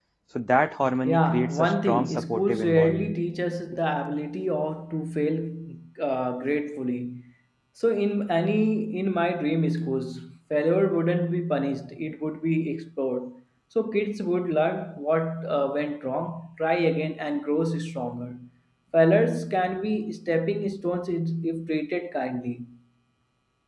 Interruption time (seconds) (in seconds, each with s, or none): 1.1 s